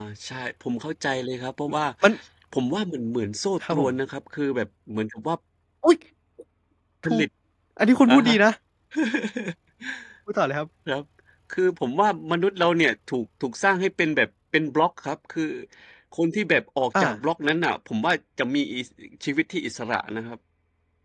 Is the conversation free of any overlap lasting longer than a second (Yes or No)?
Yes